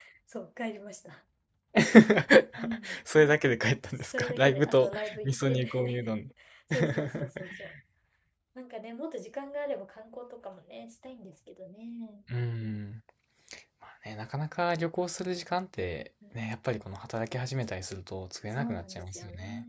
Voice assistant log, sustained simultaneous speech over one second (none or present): present